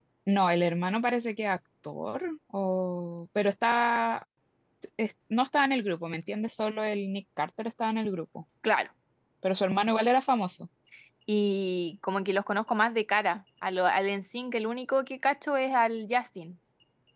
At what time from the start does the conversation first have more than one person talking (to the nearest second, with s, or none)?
none